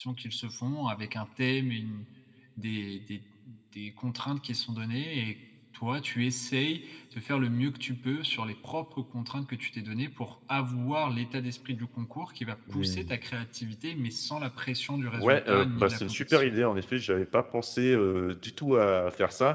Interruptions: present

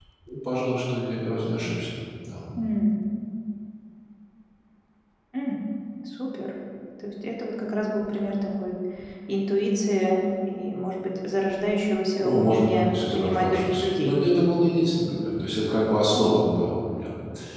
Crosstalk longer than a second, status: present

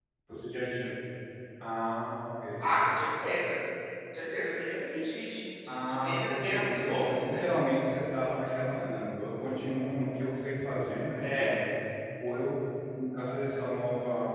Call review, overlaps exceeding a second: present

